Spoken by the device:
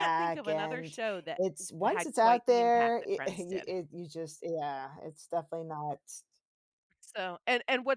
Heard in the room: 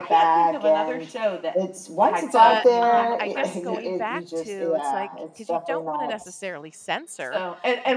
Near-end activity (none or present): present